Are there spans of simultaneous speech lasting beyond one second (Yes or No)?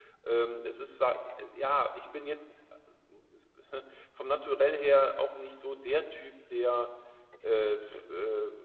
No